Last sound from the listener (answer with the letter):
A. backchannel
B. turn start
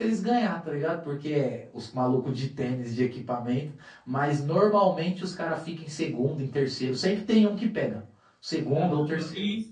B